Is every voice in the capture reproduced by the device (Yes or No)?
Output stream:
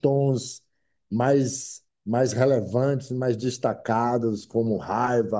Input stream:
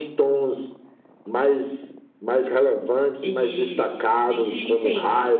No